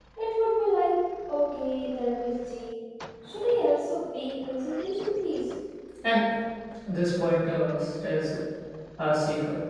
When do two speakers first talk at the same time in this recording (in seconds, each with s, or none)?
none